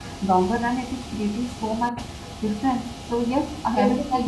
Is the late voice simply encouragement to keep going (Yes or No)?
No